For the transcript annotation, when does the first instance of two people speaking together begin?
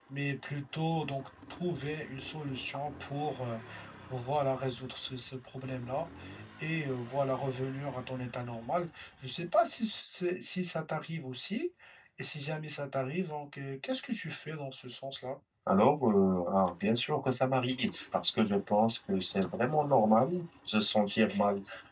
none

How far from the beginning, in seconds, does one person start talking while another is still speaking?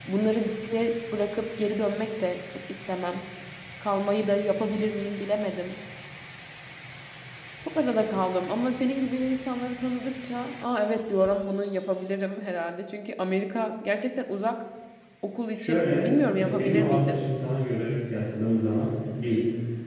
15.6 s

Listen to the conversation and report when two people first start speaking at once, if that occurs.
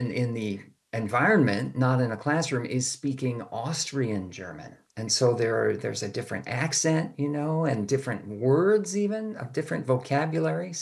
none

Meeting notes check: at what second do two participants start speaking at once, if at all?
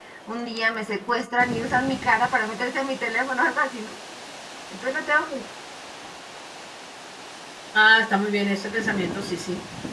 none

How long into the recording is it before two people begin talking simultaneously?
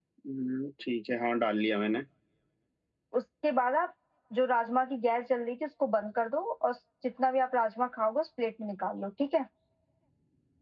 none

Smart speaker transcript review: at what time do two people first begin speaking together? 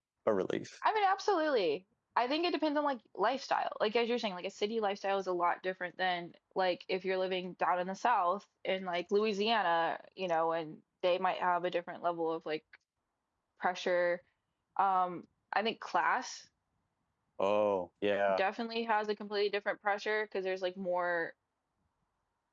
none

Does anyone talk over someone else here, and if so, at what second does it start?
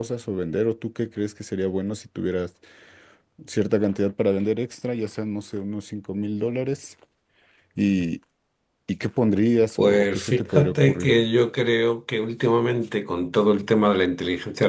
9.8 s

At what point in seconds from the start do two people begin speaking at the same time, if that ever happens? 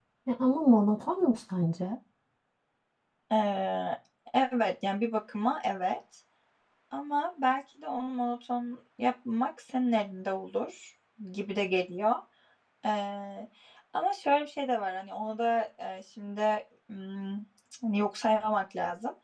none

